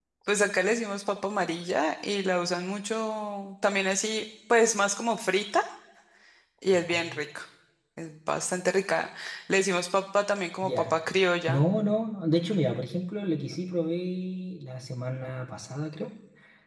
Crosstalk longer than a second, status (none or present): none